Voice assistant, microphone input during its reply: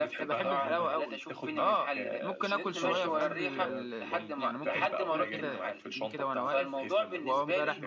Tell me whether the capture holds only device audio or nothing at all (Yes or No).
No